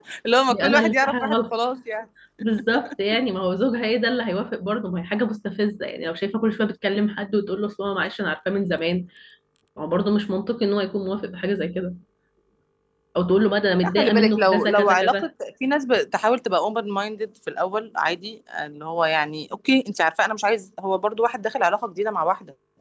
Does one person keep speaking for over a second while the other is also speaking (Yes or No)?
Yes